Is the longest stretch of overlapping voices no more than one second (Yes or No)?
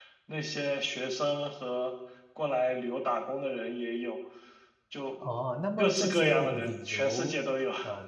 No